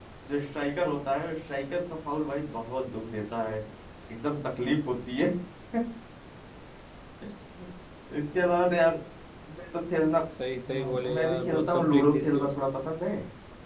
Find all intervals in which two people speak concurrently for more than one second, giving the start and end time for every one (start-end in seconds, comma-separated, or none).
10.7-12.5